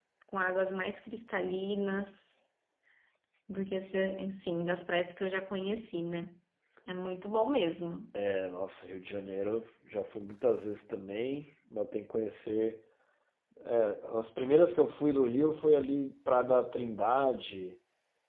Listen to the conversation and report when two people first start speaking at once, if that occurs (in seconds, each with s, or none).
none